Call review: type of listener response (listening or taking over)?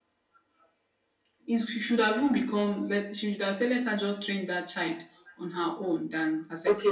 taking over